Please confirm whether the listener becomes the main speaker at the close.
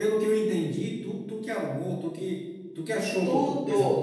Yes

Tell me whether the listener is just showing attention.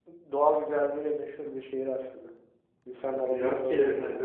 No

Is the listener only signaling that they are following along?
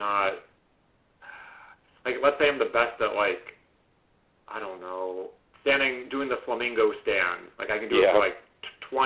Yes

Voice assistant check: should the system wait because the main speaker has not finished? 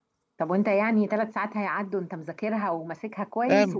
No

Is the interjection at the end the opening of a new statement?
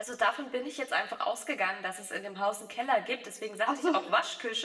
No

